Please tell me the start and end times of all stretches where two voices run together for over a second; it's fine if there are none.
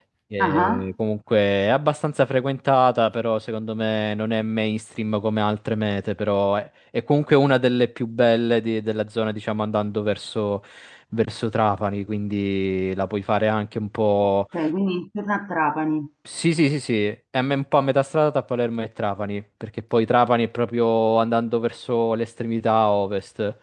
none

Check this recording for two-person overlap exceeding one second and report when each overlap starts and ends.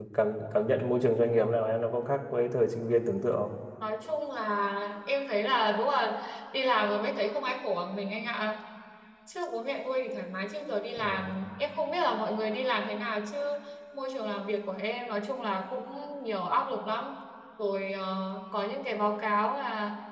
none

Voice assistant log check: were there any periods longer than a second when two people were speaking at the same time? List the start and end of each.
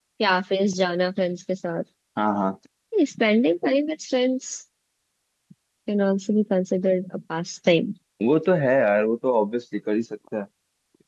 none

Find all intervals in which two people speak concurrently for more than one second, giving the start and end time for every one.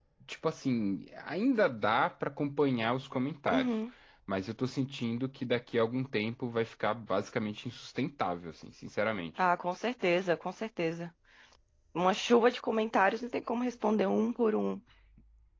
none

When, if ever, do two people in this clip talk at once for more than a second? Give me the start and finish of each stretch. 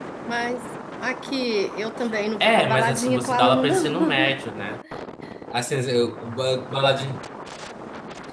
2.4-4.4

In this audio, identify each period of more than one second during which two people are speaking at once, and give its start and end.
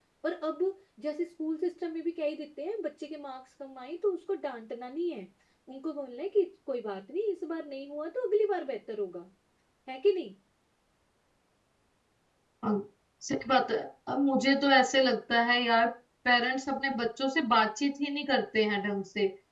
none

